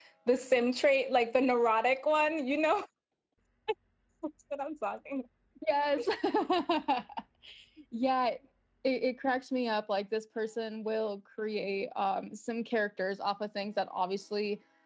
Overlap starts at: none

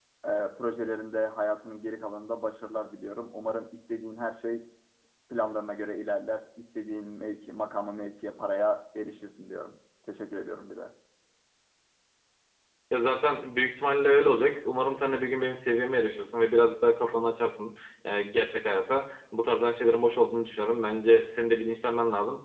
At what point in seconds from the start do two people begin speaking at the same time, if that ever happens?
none

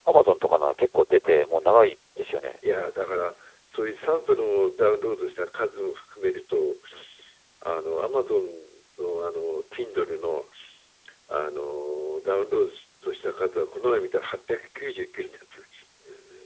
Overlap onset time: none

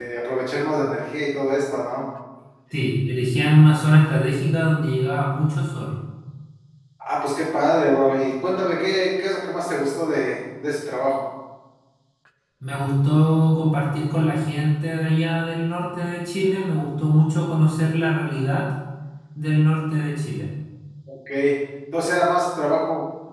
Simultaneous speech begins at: none

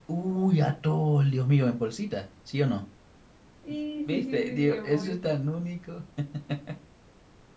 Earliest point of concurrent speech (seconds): 4.1 s

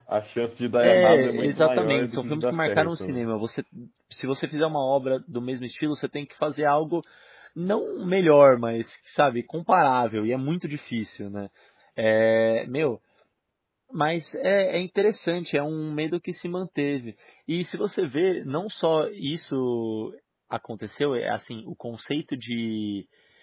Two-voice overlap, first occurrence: 0.8 s

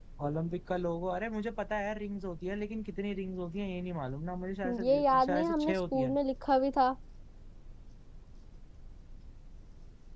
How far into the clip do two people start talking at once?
4.6 s

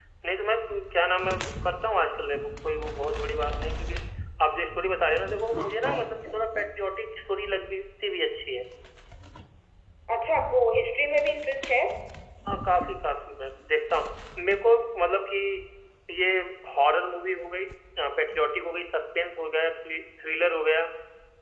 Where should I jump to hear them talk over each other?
none

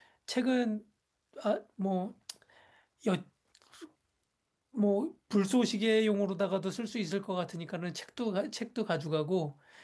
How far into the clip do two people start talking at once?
none

